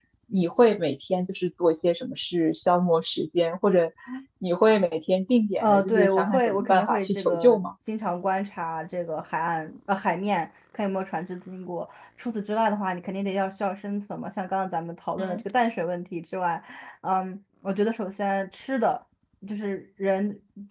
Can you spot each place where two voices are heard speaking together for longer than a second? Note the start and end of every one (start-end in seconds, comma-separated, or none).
5.6-7.6